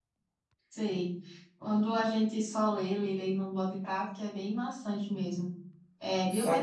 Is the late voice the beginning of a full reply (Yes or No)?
No